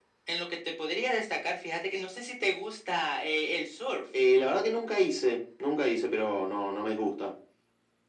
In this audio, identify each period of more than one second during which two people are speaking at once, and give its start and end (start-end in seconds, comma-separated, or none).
none